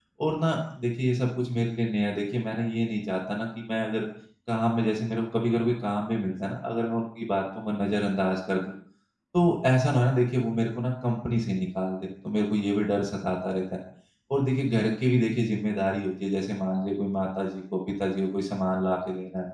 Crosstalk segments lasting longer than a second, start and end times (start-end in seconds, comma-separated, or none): none